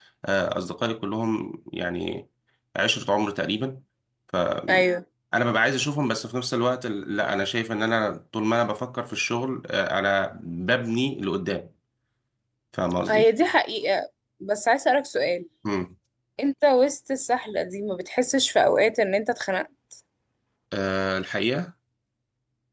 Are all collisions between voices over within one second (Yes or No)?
Yes